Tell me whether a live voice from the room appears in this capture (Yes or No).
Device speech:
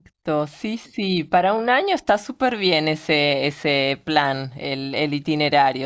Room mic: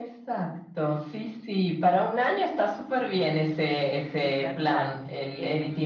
Yes